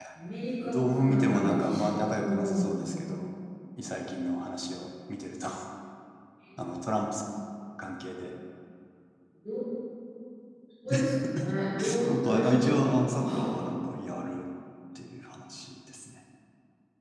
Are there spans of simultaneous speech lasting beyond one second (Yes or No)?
Yes